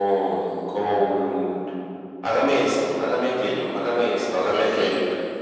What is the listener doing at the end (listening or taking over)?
listening